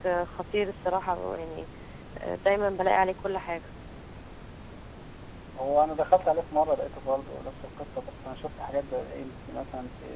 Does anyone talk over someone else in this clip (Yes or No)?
No